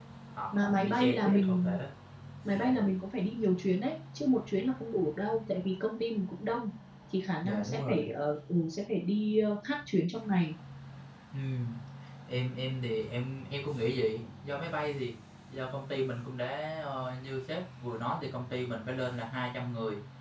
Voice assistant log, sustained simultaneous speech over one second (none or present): present